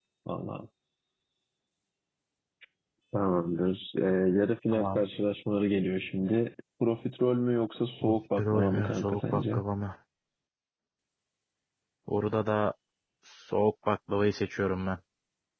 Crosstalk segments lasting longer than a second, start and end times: 8.0-9.6

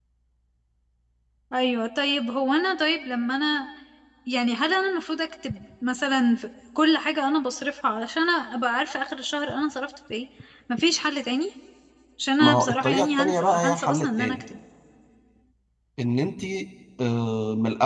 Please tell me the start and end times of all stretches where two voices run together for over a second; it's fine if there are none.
12.4-14.4

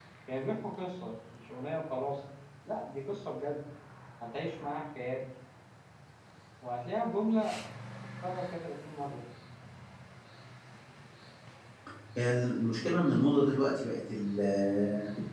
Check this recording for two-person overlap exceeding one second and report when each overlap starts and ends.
none

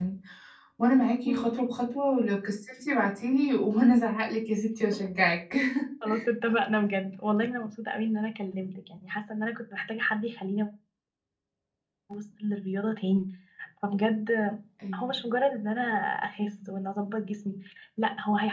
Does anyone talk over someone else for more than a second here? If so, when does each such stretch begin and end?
none

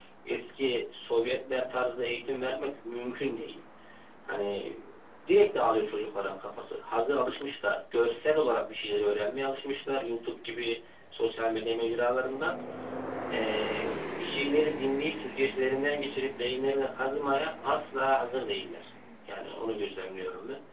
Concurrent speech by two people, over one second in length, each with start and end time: none

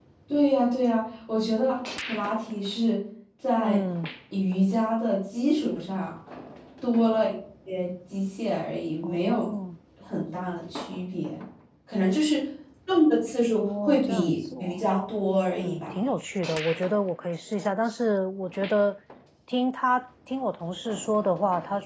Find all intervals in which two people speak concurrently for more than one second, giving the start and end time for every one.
13.6-14.8

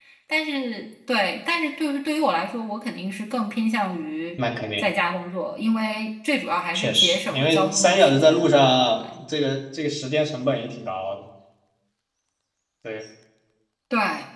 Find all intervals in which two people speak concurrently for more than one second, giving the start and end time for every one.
6.7-8.5

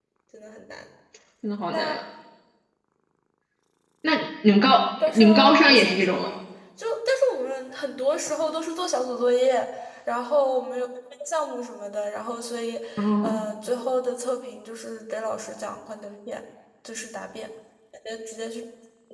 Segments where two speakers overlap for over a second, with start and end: 5.1-6.3

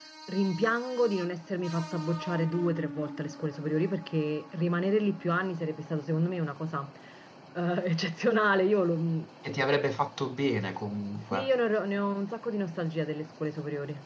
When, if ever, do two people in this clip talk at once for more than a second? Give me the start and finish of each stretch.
none

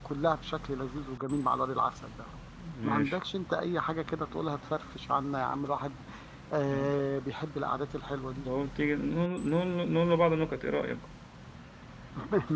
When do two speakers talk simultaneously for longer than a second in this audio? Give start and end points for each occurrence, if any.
none

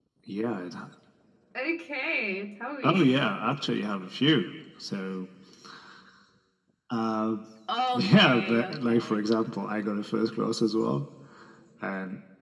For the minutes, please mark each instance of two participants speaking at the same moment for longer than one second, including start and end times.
7.9-9.2

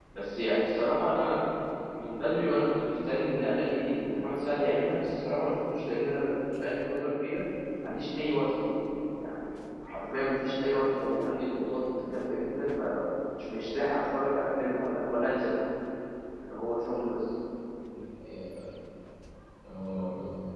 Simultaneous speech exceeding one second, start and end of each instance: none

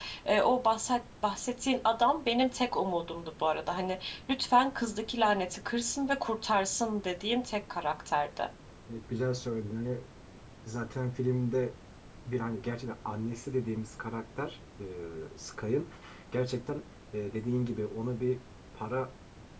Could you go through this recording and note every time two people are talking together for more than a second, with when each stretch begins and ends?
none

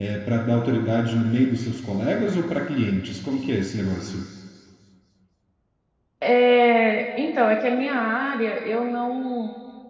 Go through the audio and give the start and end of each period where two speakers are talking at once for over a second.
none

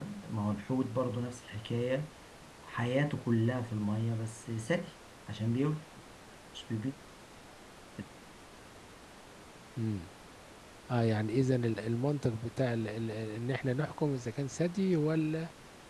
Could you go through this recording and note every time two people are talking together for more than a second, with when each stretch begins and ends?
none

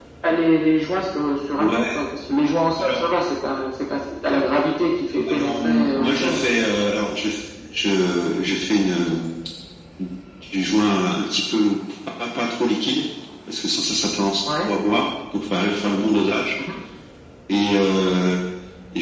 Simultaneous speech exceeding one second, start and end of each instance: 5.3-6.5

